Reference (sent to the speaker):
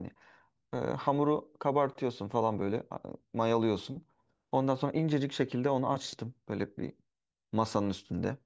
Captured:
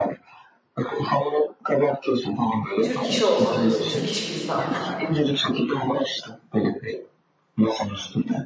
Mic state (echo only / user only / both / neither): both